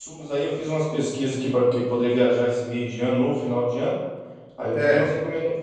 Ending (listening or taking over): listening